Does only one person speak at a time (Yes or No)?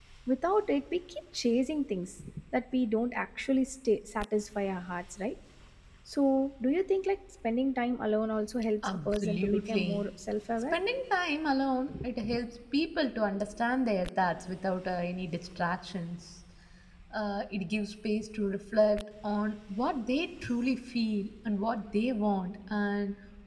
No